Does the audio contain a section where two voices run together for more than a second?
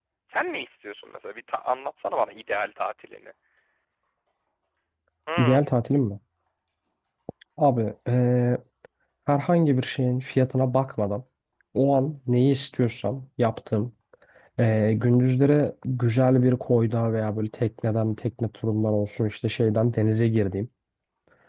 No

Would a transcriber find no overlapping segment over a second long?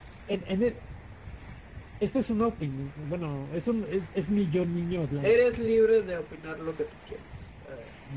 Yes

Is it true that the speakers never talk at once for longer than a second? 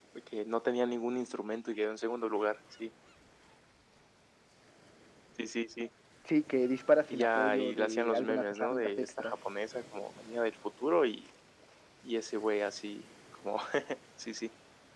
No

